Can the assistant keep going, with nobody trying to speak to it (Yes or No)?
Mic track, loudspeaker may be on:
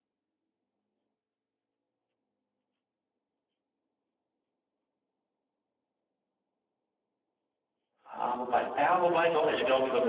No